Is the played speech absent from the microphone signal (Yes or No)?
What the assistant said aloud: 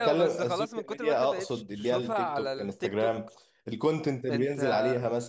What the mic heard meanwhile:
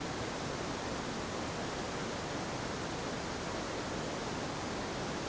Yes